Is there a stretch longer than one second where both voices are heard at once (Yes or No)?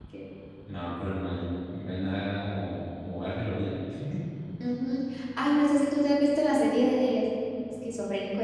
No